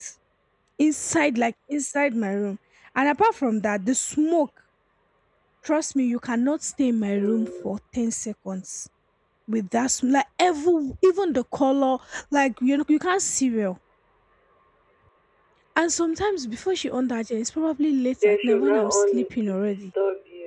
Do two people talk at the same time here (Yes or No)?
Yes